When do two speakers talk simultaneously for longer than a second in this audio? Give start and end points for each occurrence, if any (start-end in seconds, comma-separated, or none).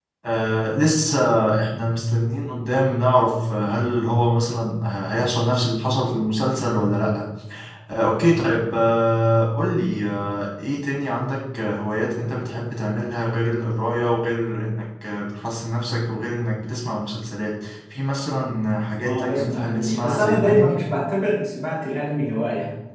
19.1-20.8